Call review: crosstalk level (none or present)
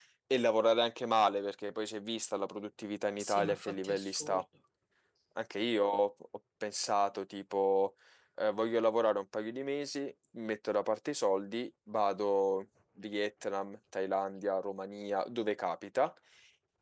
present